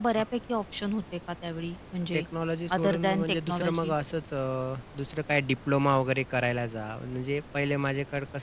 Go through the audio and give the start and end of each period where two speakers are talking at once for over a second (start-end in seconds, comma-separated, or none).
2.7-3.9